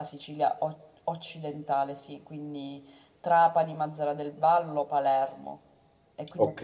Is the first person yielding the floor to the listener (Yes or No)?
No